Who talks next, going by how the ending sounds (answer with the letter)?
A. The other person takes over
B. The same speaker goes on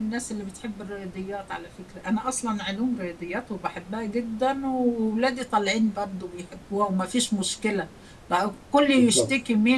B